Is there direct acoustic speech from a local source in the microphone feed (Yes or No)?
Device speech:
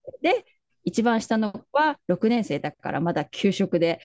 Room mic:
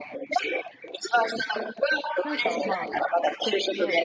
Yes